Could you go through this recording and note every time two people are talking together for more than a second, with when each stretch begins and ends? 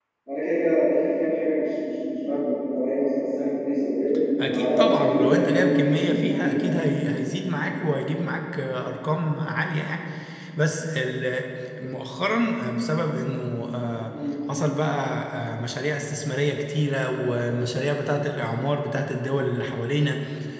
4.4-6.7

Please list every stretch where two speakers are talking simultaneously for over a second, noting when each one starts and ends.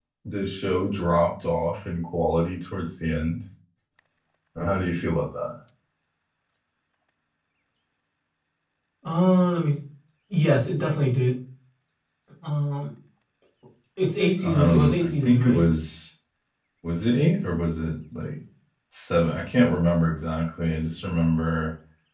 14.4-15.6

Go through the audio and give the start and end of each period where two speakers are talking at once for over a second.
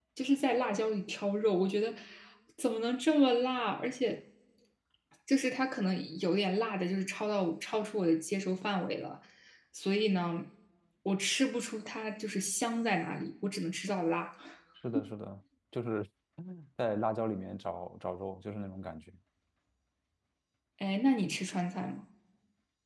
none

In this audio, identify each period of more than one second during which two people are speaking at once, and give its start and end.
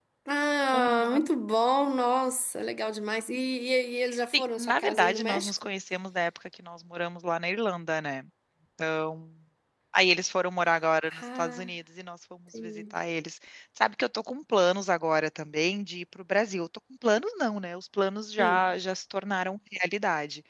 4.3-5.7

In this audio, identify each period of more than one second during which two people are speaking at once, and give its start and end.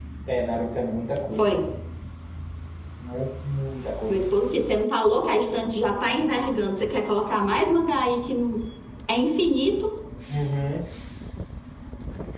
none

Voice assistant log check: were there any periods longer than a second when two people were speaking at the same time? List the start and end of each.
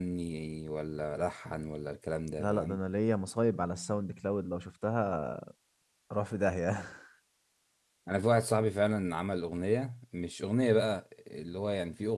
none

